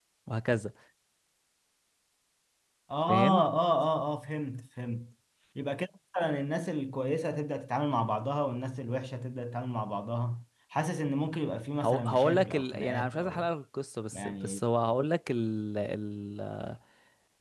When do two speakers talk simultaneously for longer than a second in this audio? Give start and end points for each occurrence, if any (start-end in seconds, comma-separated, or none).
11.8-13.5